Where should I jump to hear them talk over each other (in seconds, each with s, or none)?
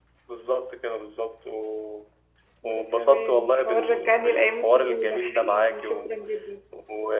2.6 s